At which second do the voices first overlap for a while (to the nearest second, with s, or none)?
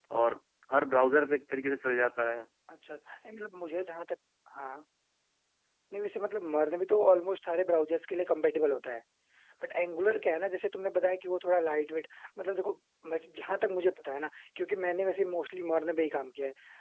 none